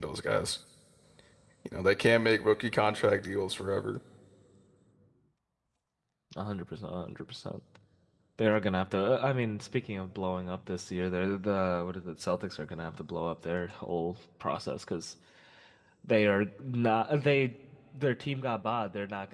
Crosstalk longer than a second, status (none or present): none